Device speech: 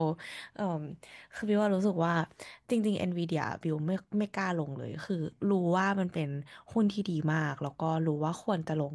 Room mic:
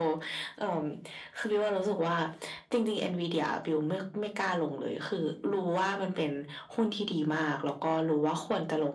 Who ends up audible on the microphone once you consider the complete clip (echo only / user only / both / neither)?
echo only